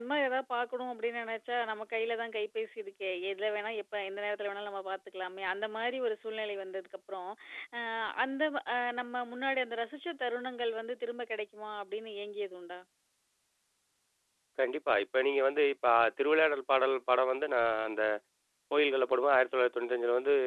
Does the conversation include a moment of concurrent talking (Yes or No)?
No